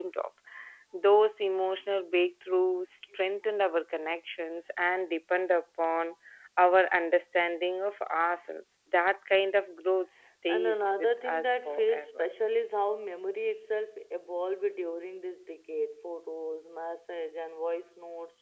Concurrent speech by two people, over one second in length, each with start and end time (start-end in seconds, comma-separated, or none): 10.5-12.3